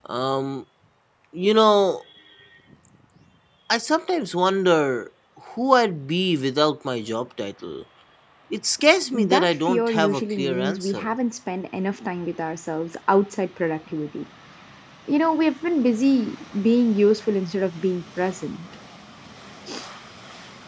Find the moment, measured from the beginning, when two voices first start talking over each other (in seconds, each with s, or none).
9.2 s